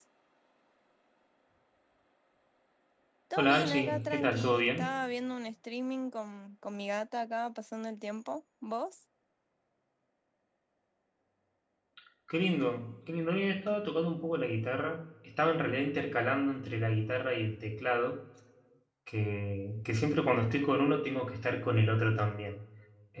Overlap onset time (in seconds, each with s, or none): 3.4 s